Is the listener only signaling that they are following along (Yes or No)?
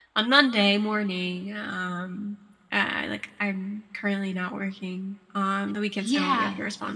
No